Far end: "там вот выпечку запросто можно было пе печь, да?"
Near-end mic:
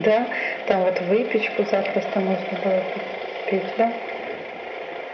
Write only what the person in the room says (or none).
none